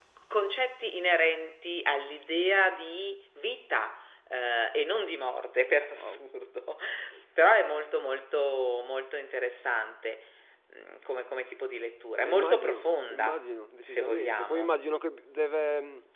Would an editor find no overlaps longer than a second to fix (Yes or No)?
No